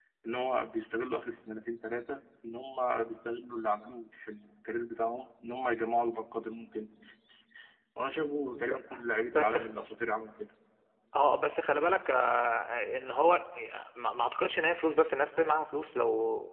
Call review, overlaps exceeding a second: none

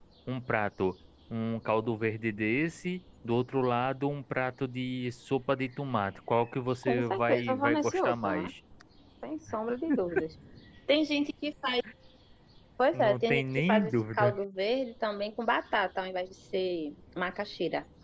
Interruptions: present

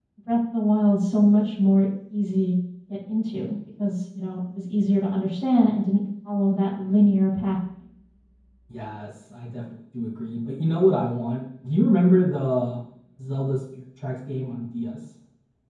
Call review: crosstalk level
none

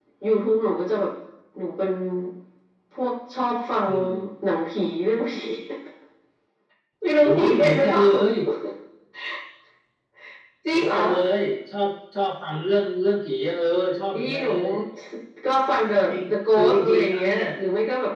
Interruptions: present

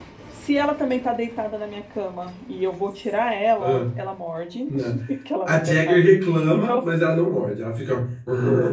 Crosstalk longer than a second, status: present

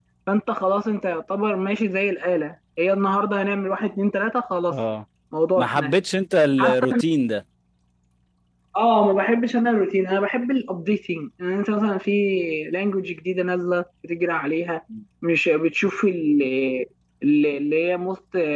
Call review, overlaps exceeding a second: none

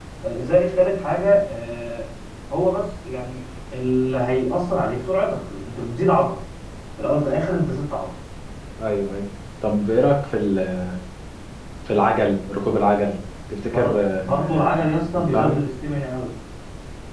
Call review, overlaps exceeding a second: present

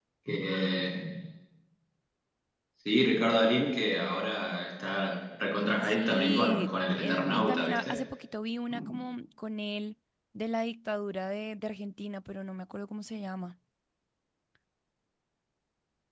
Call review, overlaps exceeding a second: present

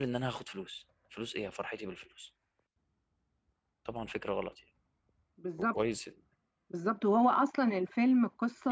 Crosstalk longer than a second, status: none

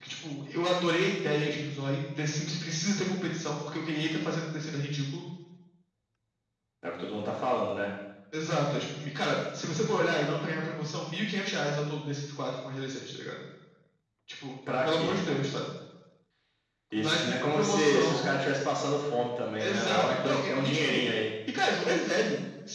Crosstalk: present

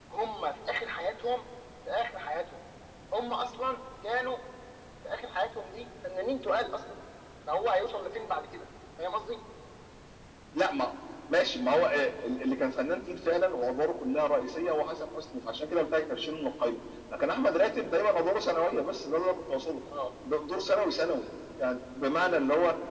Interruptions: none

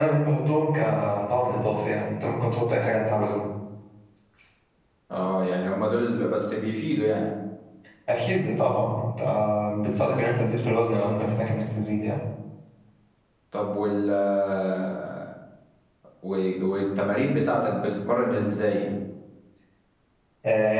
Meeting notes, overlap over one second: none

